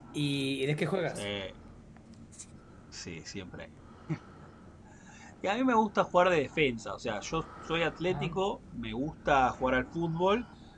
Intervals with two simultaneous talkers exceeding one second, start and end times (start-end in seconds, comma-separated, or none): none